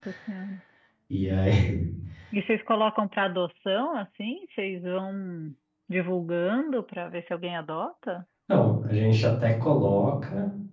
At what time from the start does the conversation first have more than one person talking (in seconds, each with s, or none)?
none